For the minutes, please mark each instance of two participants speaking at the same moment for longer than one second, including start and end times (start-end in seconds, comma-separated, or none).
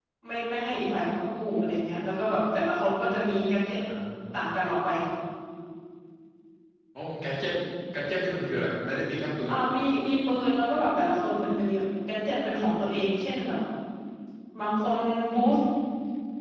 none